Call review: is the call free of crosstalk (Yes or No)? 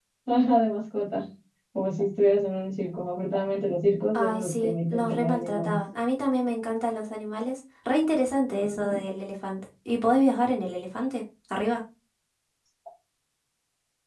No